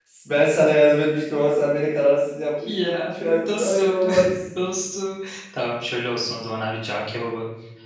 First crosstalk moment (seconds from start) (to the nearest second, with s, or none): 3 s